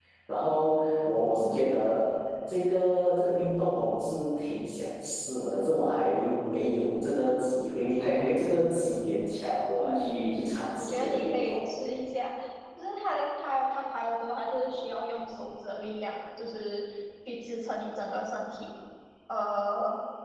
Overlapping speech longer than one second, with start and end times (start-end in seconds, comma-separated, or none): 9.8-11.6